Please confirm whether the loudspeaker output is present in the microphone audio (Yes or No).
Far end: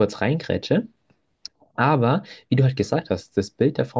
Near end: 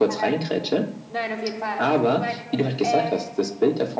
Yes